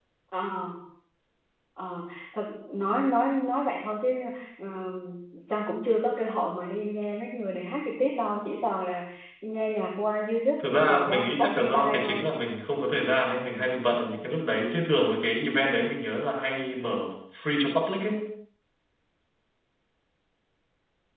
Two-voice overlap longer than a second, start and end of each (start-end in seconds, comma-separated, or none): 10.6-12.2